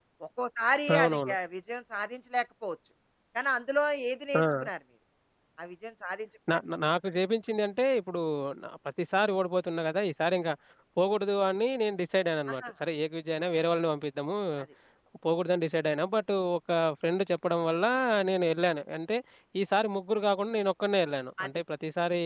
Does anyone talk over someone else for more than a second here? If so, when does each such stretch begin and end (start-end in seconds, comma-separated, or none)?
none